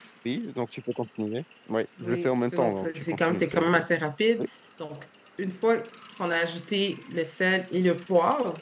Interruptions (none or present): present